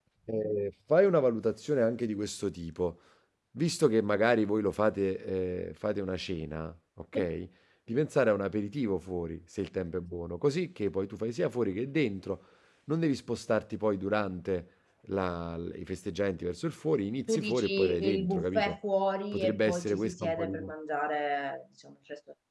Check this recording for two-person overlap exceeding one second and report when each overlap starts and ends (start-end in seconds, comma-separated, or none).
17.3-18.8, 19.3-20.6